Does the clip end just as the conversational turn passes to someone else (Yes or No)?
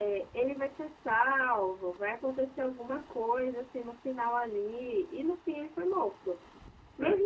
No